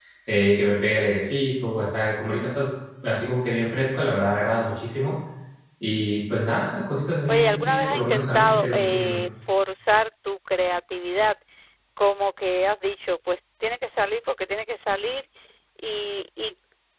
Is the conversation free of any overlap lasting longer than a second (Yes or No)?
No